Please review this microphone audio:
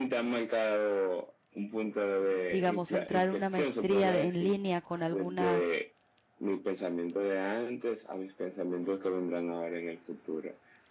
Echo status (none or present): present